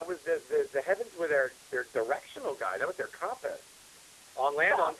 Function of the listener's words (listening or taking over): taking over